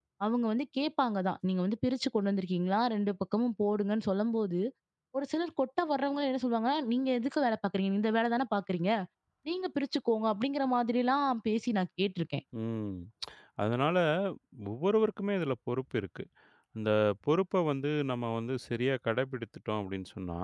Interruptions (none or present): none